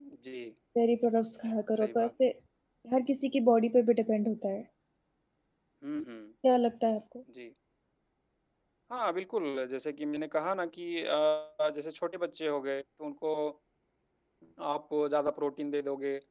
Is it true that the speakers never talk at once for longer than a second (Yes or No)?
Yes